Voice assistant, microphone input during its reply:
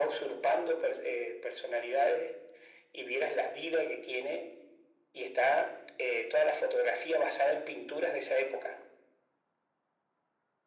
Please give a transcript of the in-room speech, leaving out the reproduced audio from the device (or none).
none